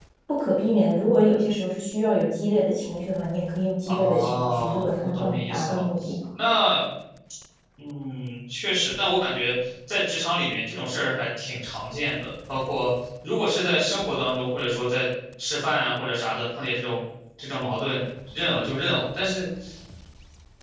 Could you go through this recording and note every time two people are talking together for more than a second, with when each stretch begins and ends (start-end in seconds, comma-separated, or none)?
3.9-5.8